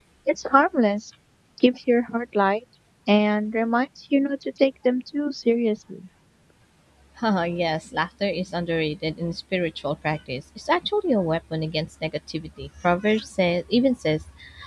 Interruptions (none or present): none